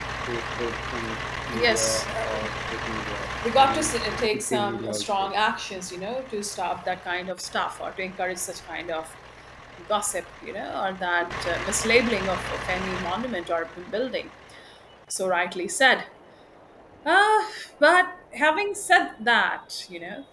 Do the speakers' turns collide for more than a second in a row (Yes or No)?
Yes